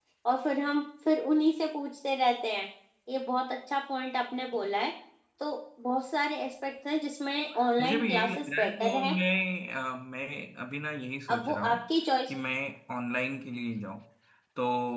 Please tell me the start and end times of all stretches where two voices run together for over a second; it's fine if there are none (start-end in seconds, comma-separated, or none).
7.8-9.2